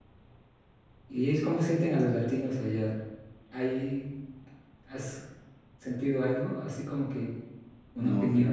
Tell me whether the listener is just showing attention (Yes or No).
No